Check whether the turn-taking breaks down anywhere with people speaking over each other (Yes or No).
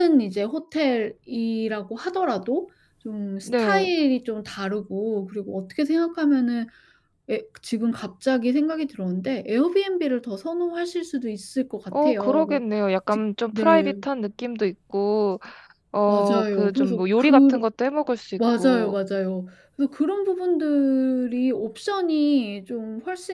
Yes